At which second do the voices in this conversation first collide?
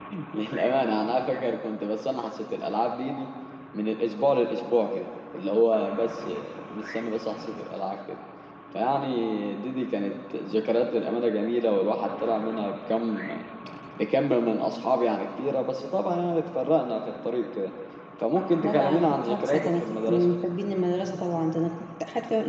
18.6 s

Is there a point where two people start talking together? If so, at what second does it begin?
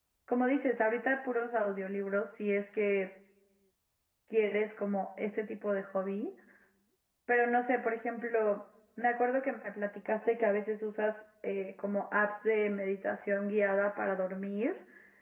none

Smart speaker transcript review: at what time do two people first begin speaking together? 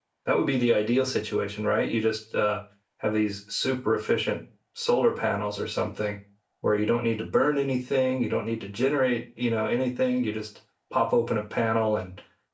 none

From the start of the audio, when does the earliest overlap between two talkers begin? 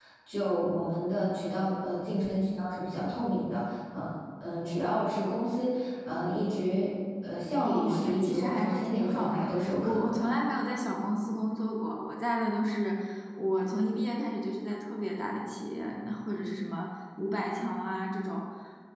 7.6 s

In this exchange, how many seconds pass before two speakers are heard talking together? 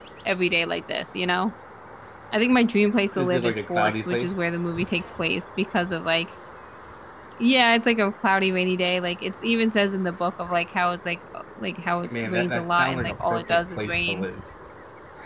3.1 s

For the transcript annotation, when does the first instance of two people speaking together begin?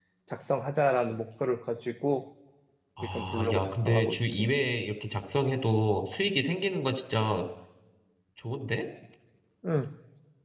3.0 s

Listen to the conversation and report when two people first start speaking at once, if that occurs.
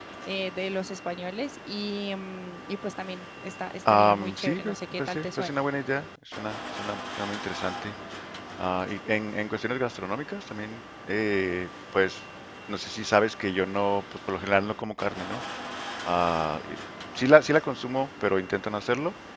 3.8 s

